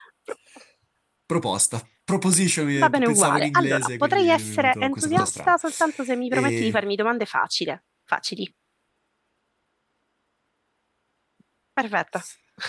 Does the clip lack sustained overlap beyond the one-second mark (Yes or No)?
No